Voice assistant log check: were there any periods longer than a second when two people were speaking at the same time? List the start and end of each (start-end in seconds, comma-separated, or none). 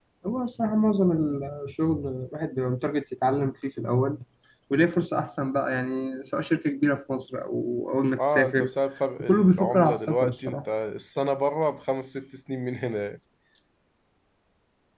9.2-10.6